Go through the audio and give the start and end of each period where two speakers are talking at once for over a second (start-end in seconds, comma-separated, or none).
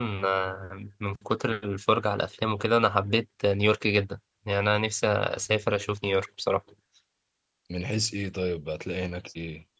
none